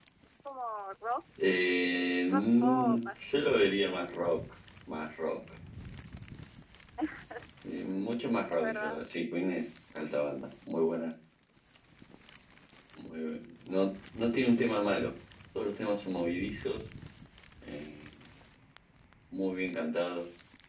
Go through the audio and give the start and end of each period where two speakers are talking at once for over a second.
2.3-4.0

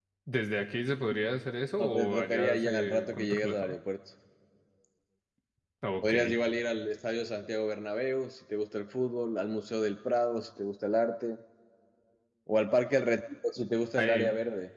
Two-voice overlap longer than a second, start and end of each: 1.8-3.8

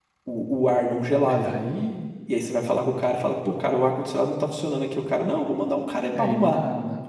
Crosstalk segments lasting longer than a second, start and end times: none

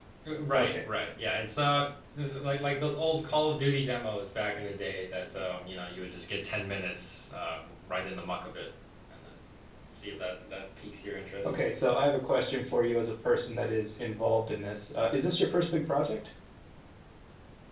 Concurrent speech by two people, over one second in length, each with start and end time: none

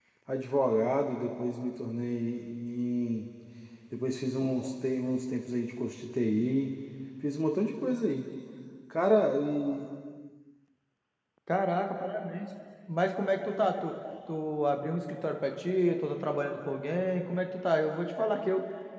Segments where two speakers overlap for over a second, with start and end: none

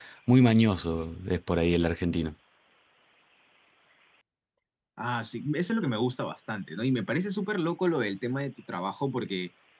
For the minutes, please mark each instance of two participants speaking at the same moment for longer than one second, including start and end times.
none

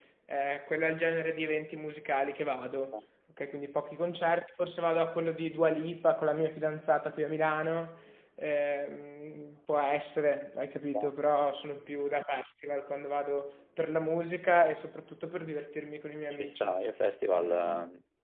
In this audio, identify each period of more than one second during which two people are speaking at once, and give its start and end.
none

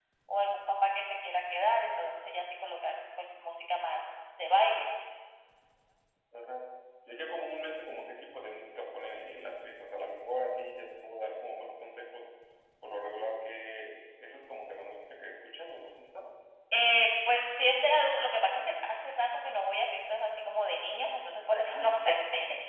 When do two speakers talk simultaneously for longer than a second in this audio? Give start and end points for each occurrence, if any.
none

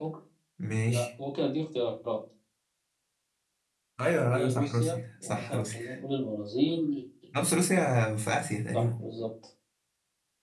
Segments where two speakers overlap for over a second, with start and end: 4.3-5.8

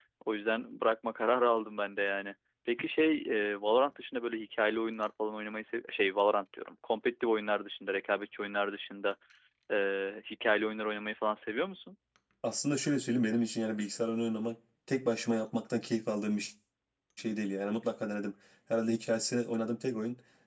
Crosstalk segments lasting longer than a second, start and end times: none

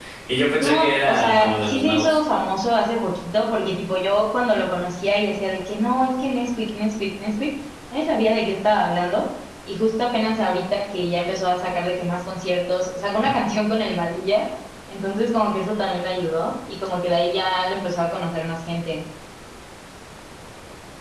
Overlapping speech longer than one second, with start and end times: 0.5-2.2

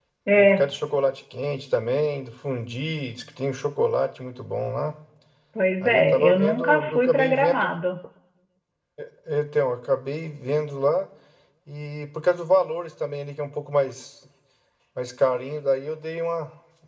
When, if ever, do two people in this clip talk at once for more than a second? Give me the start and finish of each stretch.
5.8-7.7

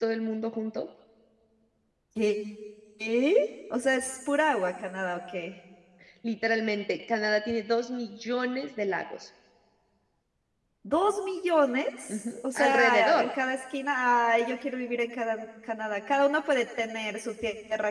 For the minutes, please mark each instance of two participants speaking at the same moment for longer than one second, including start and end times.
12.1-13.3

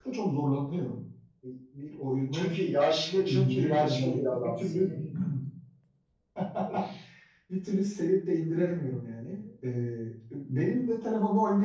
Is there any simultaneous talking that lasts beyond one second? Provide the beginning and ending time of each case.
3.3-4.8

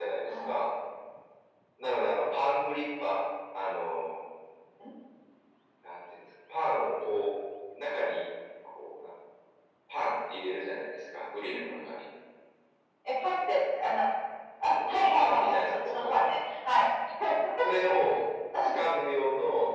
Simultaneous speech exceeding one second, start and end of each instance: 14.9-16.2

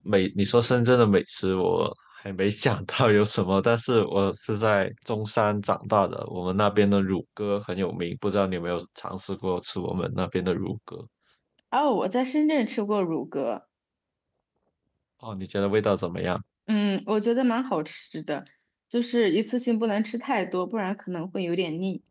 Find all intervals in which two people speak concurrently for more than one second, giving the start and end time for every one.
none

